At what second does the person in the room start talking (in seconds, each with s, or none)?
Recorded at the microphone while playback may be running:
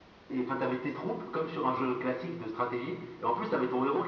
none